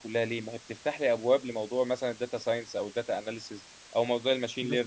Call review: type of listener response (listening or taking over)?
listening